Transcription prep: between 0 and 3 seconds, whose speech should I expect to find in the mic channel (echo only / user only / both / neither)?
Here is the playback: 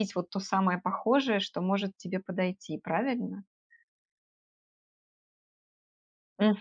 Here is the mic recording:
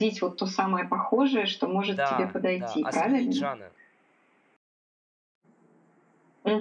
both